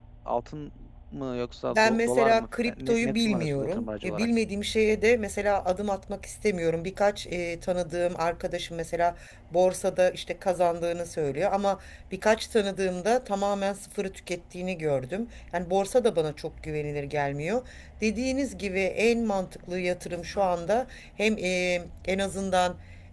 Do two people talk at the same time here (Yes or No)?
Yes